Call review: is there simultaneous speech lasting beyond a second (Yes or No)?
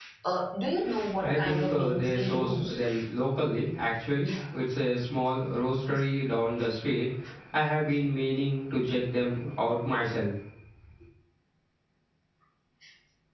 Yes